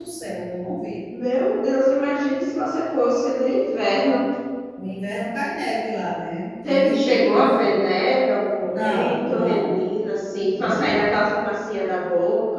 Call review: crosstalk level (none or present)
present